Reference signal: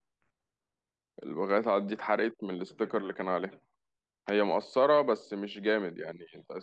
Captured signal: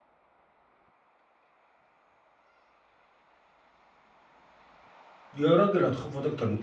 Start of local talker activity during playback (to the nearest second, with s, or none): 5 s